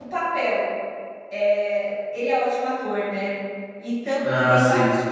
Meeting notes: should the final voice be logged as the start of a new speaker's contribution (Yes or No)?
No